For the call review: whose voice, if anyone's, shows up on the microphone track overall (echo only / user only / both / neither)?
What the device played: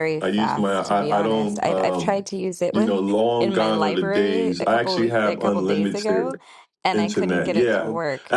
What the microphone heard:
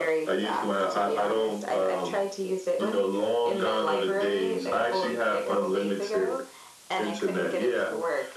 echo only